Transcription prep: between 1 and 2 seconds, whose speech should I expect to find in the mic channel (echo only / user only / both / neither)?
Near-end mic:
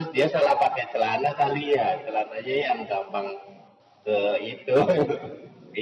echo only